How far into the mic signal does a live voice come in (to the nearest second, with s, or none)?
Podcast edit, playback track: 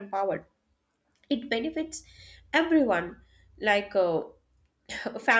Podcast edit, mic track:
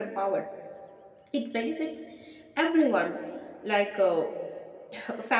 none